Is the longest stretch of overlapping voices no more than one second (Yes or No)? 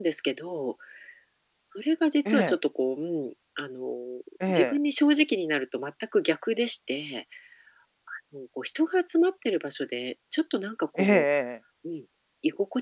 Yes